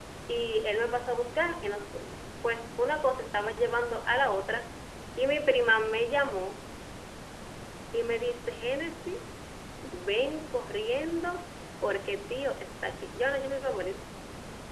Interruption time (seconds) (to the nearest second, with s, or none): none